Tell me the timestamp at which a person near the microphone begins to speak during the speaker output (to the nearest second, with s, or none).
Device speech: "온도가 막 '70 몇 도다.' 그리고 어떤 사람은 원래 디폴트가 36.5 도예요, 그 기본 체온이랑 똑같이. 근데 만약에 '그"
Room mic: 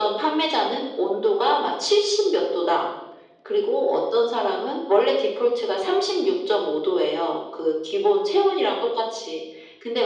none